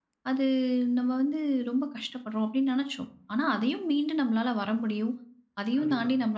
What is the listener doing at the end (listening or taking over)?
listening